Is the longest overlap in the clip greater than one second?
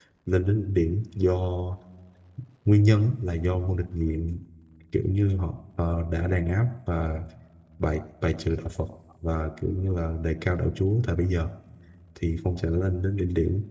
No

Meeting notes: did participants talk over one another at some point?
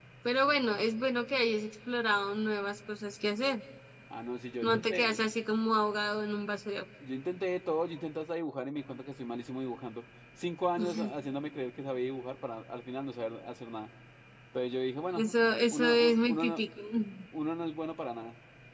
Yes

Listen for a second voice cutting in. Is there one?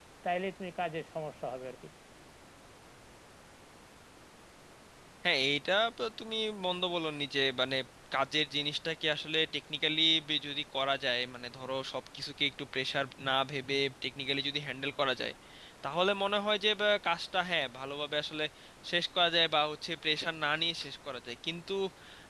No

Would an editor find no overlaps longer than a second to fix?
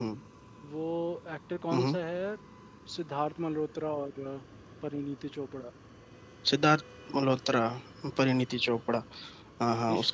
Yes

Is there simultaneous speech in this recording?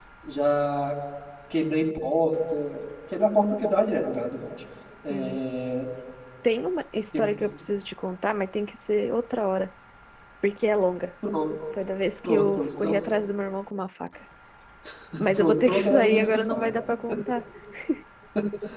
Yes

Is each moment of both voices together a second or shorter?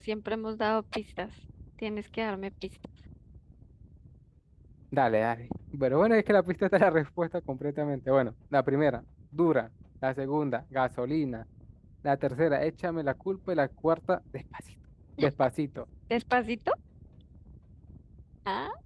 Yes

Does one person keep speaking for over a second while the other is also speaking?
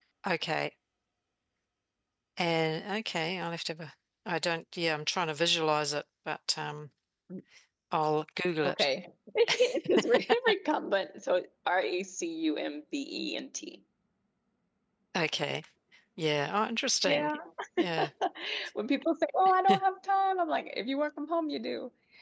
No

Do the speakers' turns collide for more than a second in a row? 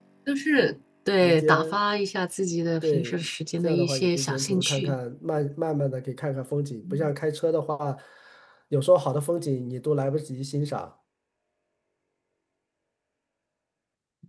Yes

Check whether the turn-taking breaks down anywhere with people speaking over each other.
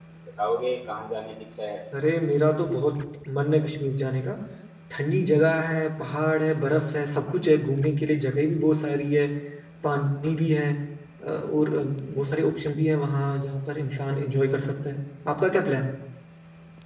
No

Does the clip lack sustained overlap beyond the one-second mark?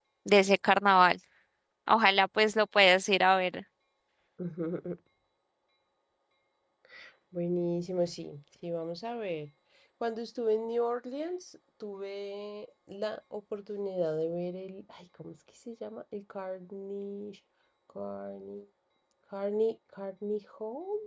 Yes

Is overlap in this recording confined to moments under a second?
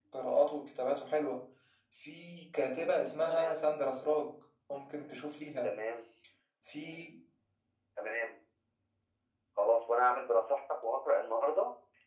Yes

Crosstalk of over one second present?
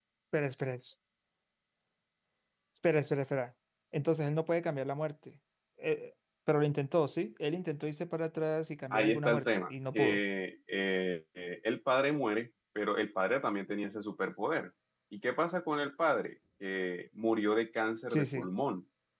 Yes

